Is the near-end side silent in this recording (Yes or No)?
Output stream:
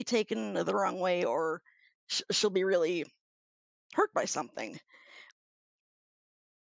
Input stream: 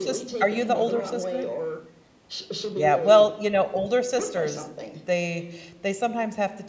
No